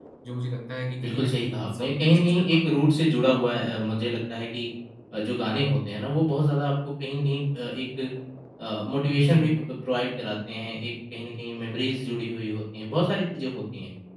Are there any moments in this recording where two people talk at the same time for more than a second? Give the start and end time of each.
1.0-2.8

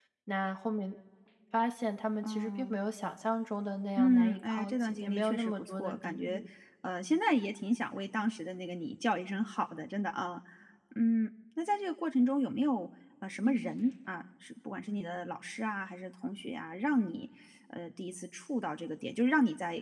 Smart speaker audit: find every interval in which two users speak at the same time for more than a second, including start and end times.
4.0-6.4

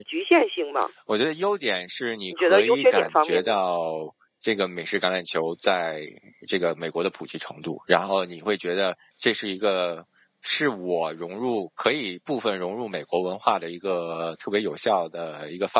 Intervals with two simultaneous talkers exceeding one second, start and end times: 2.3-3.5

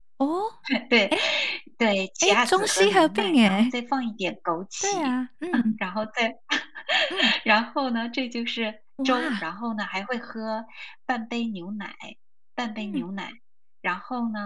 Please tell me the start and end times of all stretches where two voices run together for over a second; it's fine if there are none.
2.2-3.7

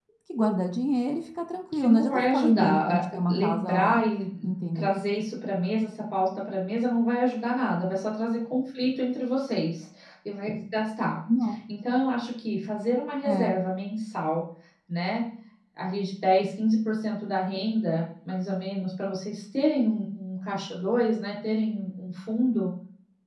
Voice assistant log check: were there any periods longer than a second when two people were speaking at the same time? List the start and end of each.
1.7-4.0

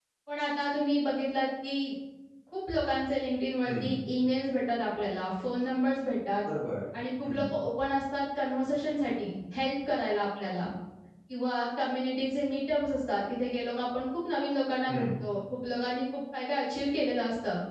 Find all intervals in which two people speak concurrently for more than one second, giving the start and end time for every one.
none

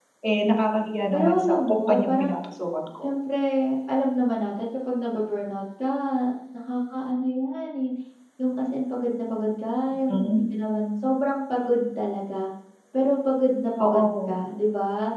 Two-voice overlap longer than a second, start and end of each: 1.1-2.4

